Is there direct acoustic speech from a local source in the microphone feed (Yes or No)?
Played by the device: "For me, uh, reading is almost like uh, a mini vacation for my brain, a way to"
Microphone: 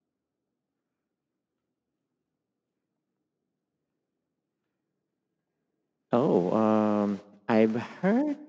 Yes